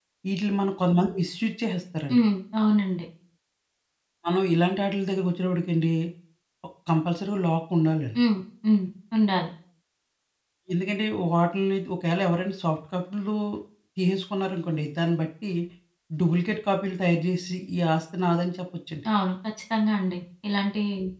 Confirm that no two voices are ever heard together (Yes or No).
Yes